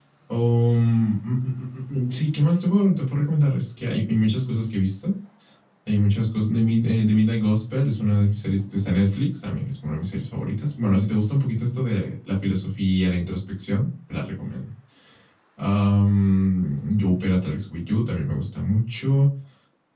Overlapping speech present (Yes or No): No